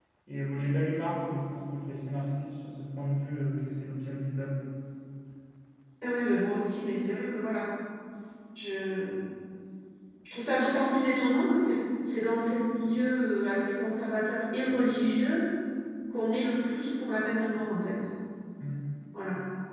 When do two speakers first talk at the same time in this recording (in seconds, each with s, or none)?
none